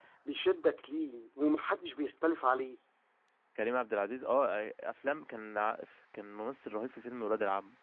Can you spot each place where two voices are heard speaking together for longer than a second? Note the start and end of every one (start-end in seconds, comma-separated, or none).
none